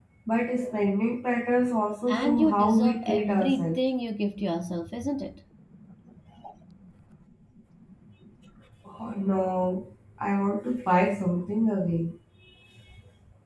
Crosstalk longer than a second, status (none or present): present